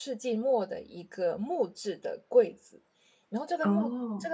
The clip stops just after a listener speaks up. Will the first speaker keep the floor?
Yes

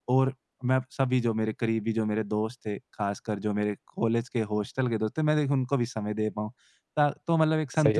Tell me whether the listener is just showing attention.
Yes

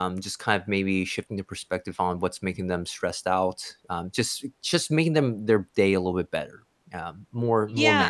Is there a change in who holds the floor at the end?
Yes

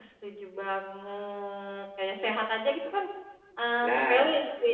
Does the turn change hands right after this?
No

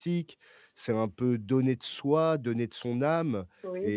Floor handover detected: No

